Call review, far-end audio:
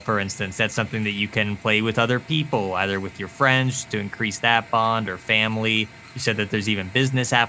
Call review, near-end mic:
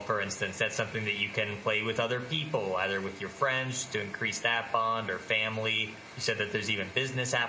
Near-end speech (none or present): none